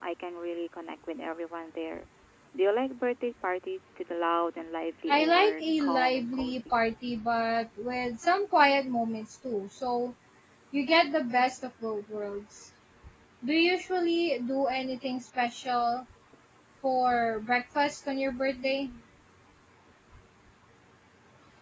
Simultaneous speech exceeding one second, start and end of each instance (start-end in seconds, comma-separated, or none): 5.1-6.6